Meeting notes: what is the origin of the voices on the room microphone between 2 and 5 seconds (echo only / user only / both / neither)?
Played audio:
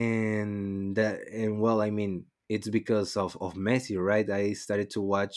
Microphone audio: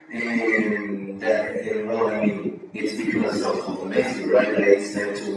echo only